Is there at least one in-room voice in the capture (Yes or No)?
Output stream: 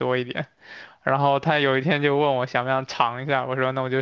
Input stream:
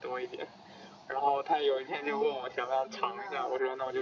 Yes